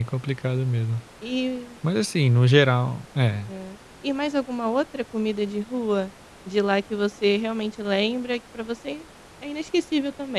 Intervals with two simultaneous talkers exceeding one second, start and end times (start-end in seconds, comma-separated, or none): none